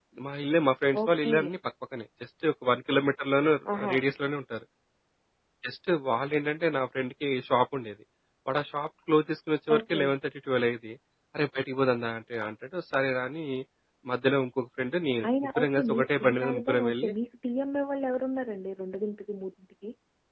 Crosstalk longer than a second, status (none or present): present